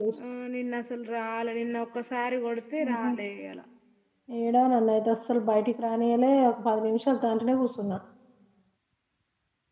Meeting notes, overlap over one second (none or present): none